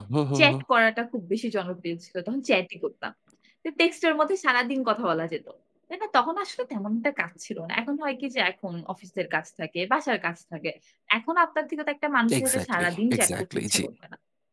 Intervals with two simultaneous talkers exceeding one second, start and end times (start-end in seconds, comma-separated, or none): 12.4-13.8